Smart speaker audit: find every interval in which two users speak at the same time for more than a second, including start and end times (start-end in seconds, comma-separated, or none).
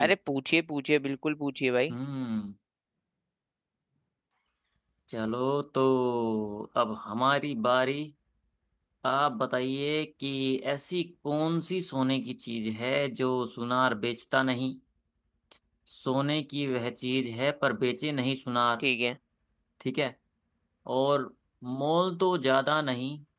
none